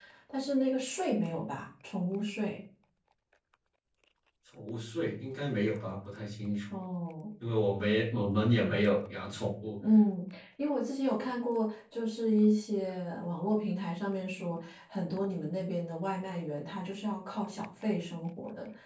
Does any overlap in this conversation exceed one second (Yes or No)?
No